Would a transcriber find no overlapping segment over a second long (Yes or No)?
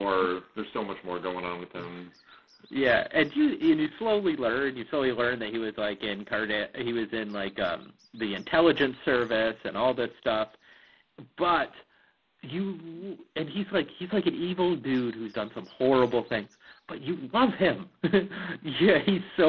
Yes